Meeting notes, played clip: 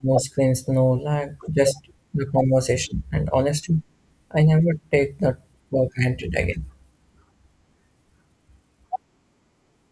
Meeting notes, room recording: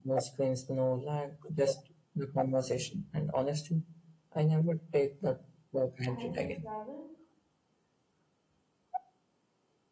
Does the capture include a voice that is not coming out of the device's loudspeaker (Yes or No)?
Yes